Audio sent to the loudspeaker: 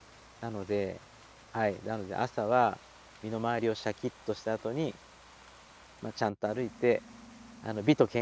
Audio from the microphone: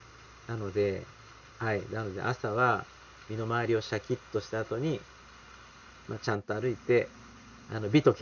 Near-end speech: none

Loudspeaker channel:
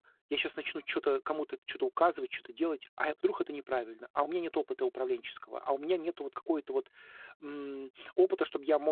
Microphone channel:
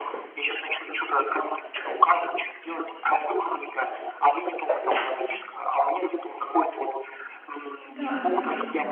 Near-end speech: present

